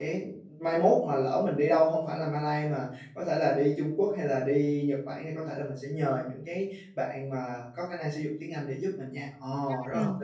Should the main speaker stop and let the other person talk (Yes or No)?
Yes